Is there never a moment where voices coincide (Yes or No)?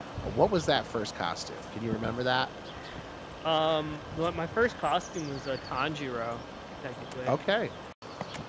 Yes